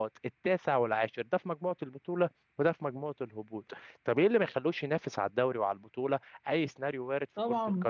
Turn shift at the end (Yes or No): Yes